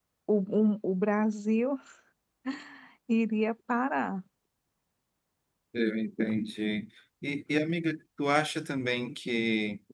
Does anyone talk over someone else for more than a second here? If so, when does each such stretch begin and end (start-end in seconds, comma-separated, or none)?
none